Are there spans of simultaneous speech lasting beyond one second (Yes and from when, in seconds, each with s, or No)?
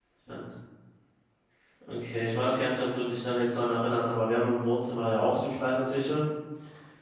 No